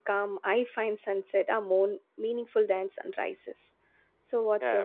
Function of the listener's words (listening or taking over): taking over